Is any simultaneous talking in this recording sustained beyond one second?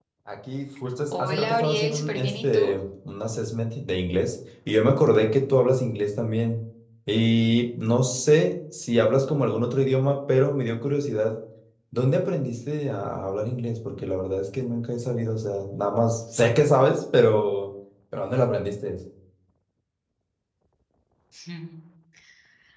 Yes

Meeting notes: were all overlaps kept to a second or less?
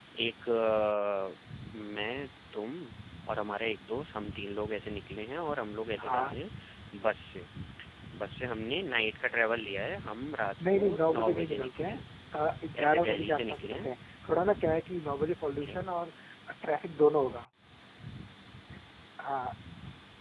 No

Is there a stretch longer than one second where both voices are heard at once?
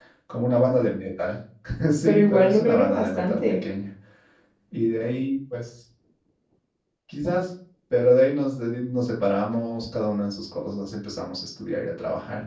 Yes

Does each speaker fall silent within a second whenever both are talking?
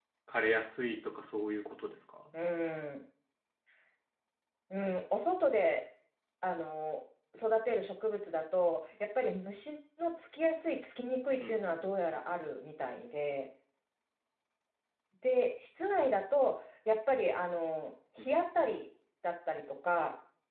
Yes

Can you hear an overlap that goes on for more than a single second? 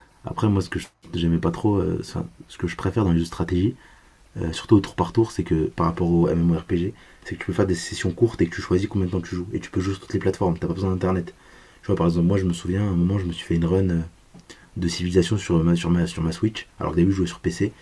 No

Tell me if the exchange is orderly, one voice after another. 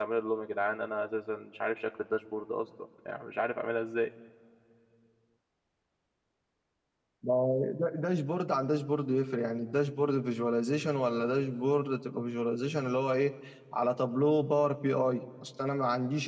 Yes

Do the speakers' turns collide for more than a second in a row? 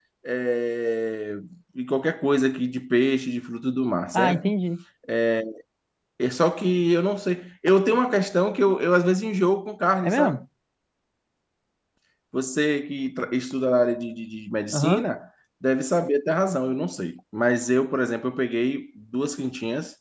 No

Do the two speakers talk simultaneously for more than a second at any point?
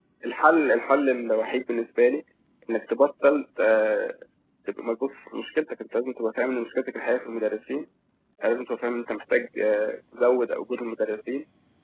No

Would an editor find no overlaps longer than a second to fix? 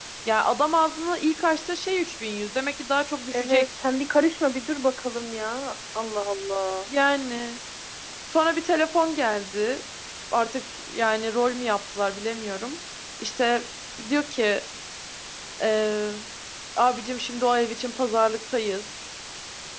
Yes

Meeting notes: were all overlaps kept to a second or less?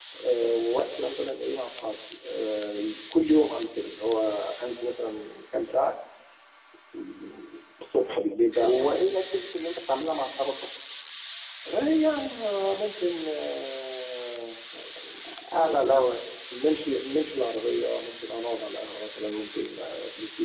Yes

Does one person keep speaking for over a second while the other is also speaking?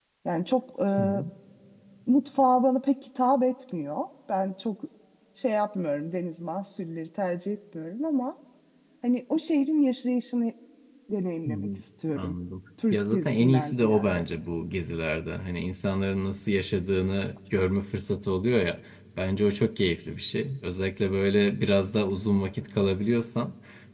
Yes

